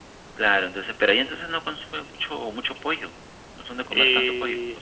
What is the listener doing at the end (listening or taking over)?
taking over